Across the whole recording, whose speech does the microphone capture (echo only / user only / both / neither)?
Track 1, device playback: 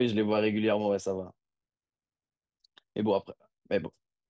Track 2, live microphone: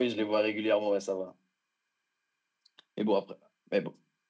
echo only